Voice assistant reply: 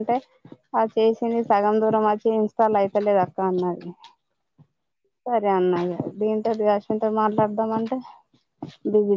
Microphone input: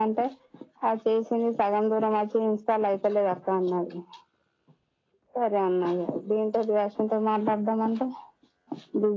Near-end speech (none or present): none